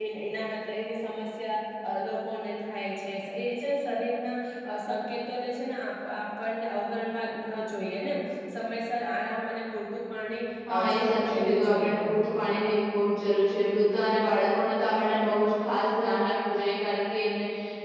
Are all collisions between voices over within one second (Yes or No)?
No